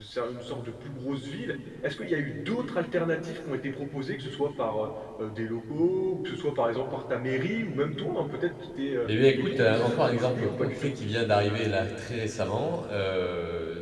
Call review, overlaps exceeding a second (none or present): present